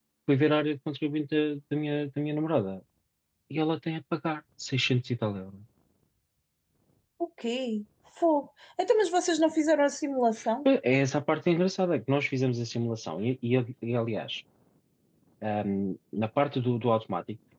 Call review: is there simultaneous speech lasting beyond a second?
No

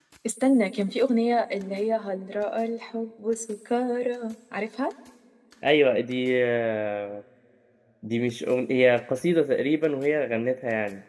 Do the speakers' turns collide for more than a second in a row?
No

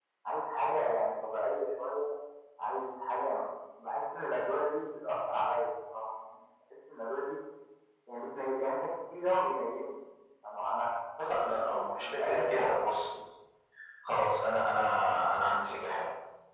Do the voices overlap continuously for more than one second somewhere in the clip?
Yes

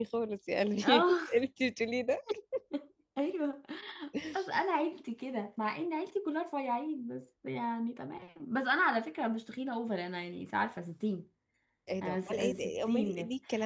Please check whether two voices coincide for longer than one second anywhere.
Yes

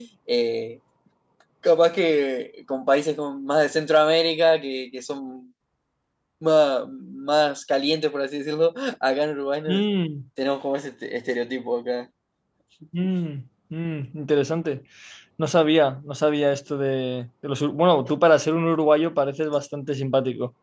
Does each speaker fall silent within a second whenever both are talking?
Yes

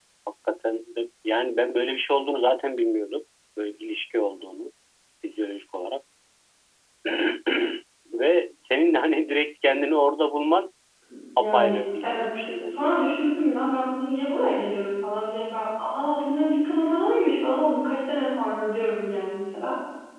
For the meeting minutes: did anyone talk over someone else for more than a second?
Yes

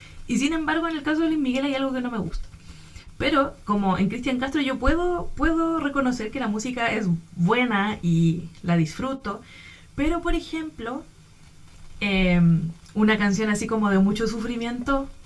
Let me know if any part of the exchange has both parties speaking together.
No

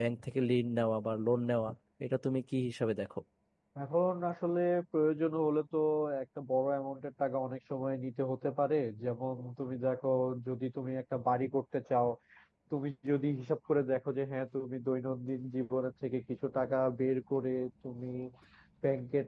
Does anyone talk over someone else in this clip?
No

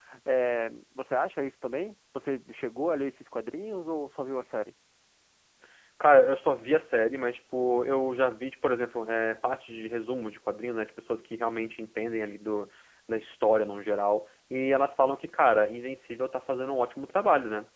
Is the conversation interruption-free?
Yes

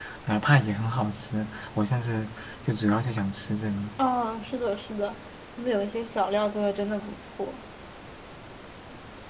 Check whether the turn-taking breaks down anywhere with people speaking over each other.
No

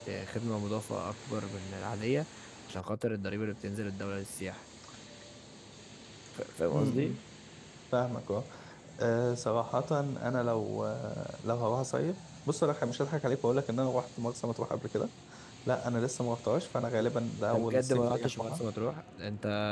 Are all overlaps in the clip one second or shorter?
No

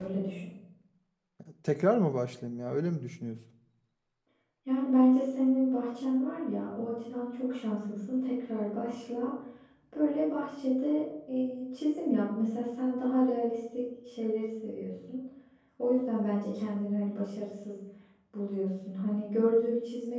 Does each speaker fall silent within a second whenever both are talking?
Yes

